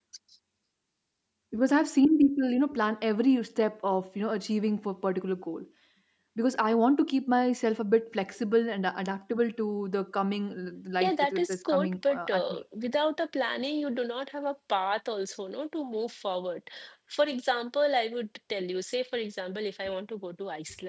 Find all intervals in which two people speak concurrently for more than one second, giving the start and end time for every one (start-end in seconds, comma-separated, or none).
11.0-12.6